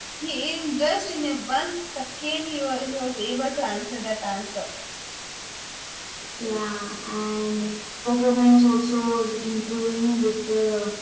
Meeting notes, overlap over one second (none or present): none